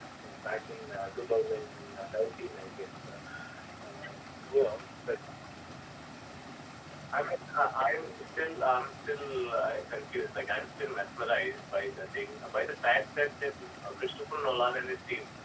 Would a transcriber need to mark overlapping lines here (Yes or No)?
No